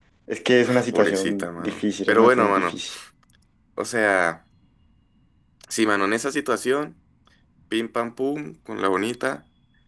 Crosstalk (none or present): present